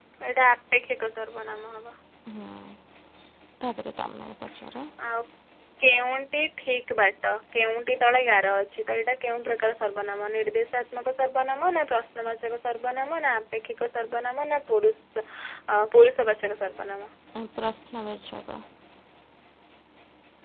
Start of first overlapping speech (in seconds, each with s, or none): none